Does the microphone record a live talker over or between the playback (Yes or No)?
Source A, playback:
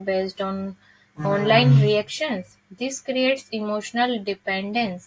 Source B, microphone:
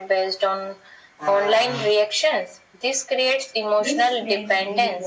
Yes